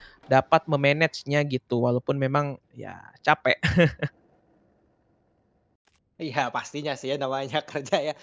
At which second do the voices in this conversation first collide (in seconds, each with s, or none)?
none